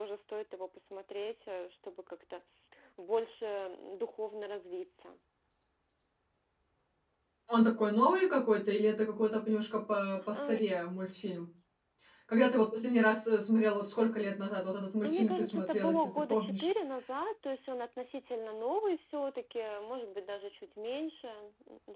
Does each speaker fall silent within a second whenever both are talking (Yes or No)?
No